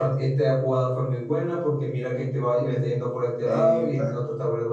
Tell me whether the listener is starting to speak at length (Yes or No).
No